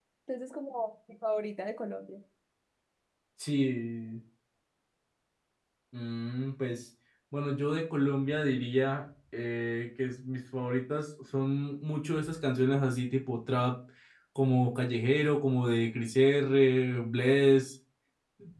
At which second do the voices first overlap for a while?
none

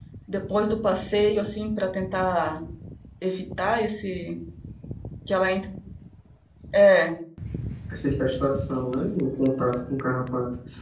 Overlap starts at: none

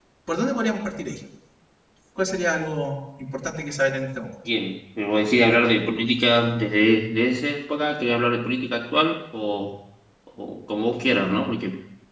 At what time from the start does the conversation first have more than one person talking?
none

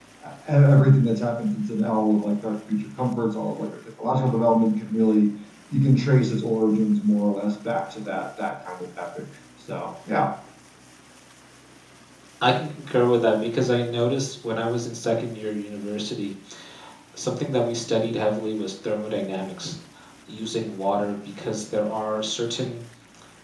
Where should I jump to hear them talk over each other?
none

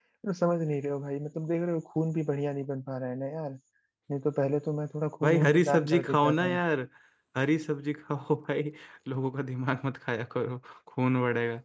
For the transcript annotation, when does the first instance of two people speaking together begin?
5.2 s

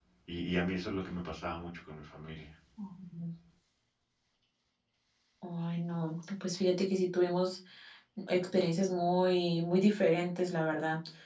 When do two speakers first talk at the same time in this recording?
none

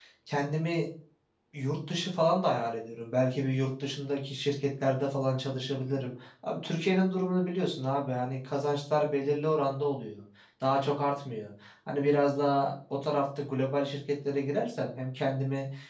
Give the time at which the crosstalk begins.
none

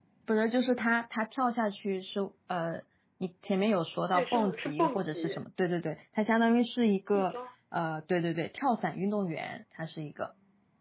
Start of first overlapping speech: 4.1 s

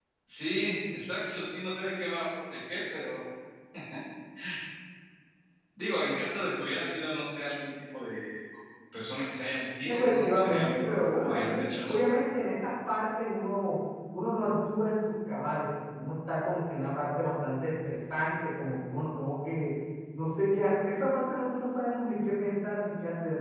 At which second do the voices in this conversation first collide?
9.8 s

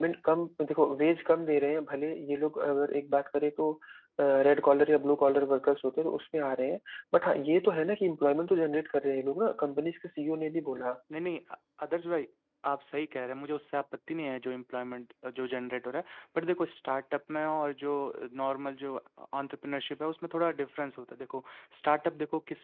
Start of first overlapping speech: none

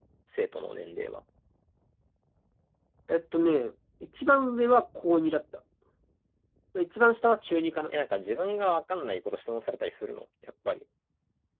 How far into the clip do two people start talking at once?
none

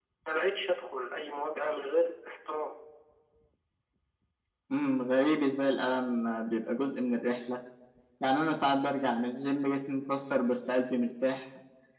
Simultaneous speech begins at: none

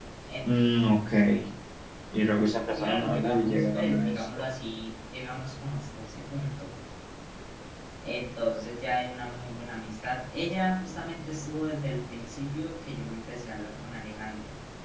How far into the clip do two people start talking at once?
2.8 s

